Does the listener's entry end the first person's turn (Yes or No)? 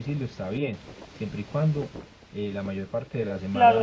Yes